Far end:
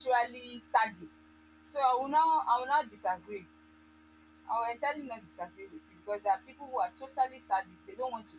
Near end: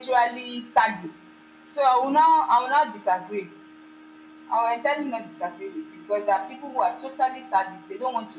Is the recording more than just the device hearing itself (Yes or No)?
No